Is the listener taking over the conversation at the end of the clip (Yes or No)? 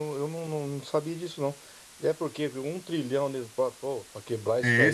Yes